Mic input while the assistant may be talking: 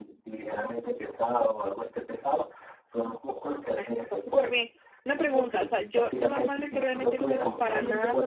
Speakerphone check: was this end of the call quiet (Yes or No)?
No